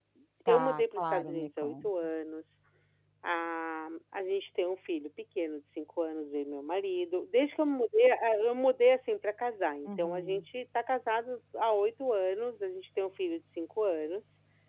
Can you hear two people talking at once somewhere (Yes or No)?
Yes